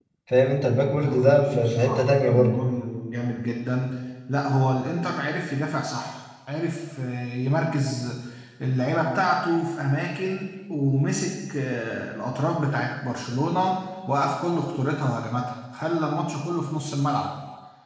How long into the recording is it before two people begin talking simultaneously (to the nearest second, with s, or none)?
1 s